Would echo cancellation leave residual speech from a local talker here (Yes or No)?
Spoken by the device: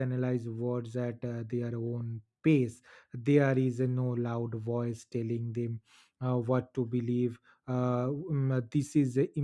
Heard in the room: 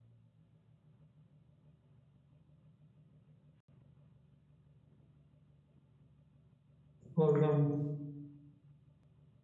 Yes